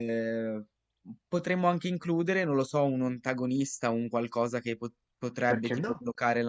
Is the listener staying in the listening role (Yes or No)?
Yes